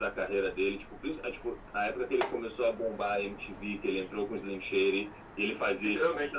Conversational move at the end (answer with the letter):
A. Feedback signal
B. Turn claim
A